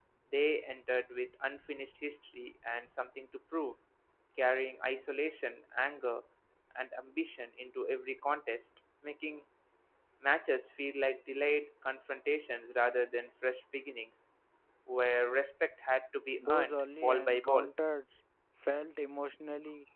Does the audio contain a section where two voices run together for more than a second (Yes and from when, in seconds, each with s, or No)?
Yes, from 16.4 s